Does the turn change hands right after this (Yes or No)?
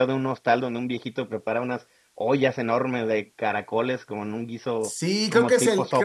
Yes